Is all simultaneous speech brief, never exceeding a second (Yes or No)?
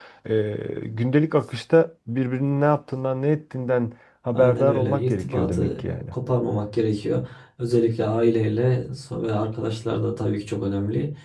No